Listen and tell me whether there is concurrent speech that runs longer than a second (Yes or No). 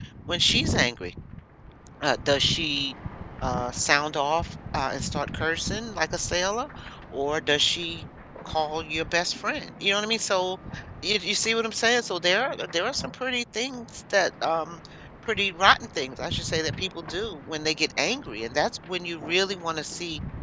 No